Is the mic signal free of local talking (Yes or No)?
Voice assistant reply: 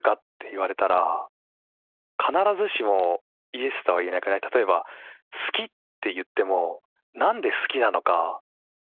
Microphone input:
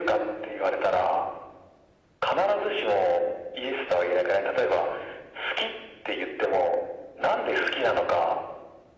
Yes